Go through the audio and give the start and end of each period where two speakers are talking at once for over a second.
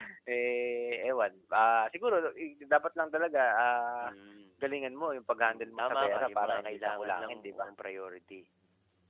5.4-7.7

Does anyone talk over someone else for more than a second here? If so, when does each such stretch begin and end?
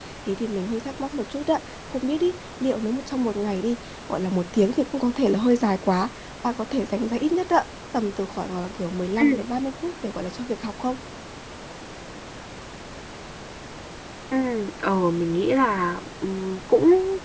none

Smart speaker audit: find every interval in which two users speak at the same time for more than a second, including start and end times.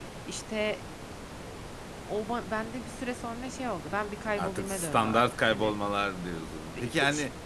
4.4-5.7

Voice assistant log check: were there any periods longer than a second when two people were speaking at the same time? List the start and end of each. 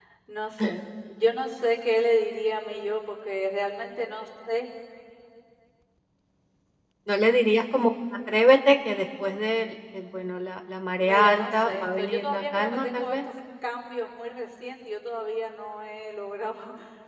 11.0-13.2

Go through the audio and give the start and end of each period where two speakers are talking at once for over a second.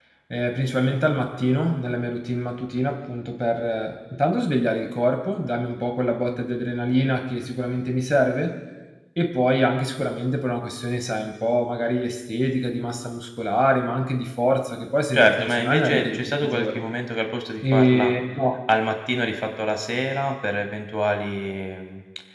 15.1-16.9

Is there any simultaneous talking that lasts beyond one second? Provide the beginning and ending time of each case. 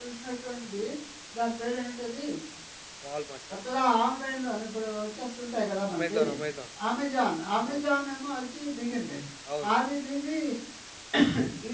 none

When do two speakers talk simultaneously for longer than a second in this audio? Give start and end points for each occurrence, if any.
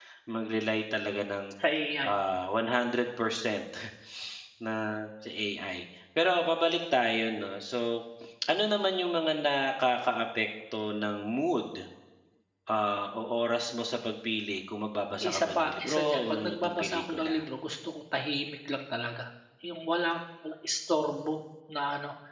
15.2-17.4

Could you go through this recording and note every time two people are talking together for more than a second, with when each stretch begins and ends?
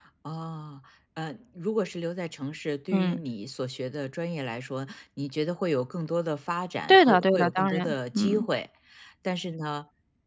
6.9-8.5

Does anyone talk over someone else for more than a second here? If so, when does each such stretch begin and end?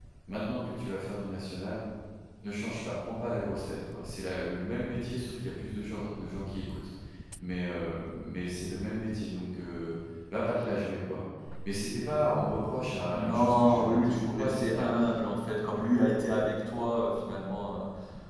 13.1-14.9

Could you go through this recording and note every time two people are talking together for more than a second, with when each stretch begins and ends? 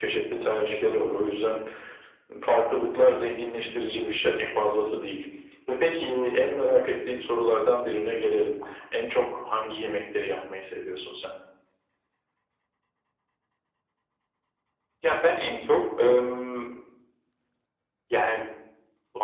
none

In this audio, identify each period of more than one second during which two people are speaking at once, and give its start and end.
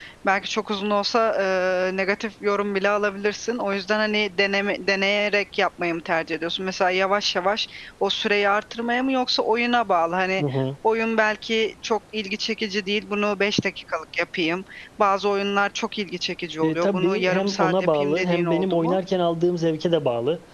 16.6-19.0

